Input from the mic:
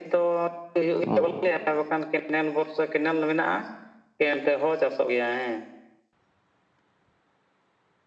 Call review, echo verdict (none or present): present